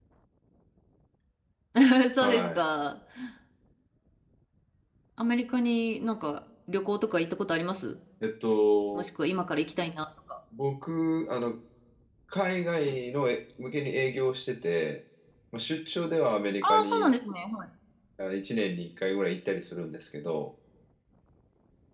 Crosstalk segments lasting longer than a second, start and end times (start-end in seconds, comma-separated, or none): none